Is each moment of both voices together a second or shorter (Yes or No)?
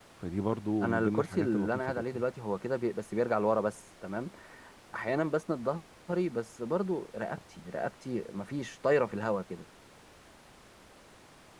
No